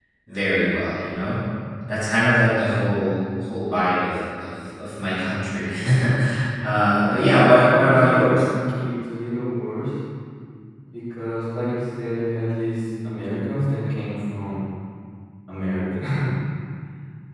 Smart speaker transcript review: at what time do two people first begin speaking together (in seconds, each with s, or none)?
7.1 s